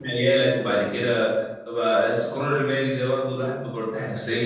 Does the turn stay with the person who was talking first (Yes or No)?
No